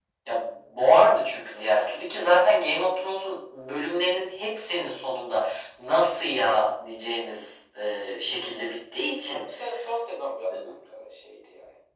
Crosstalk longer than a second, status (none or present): none